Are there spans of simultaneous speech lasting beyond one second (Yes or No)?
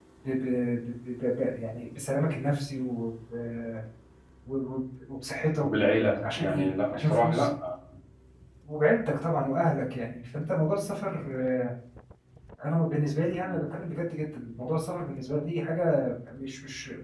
Yes